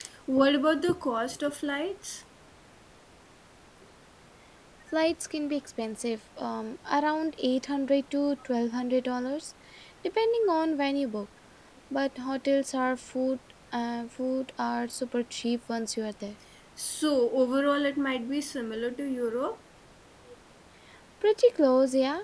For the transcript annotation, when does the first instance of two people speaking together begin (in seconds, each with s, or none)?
none